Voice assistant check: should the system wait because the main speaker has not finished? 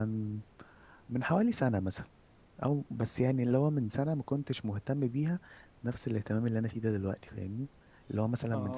Yes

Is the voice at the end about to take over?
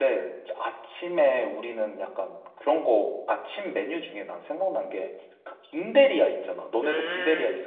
Yes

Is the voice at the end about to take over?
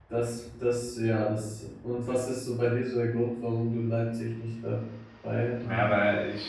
Yes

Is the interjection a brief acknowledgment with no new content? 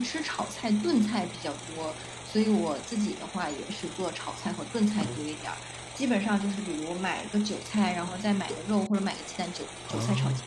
Yes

